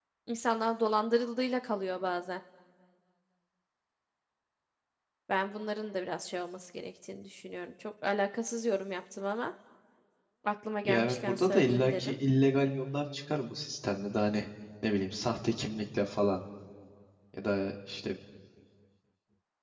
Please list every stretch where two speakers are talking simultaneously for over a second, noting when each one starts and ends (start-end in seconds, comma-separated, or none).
10.8-12.2